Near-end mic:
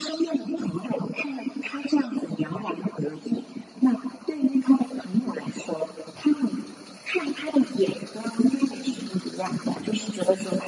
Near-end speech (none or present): none